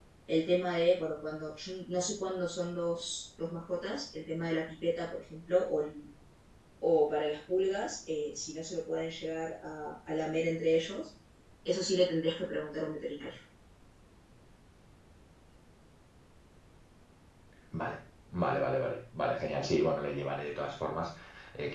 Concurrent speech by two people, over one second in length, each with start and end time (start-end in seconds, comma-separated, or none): none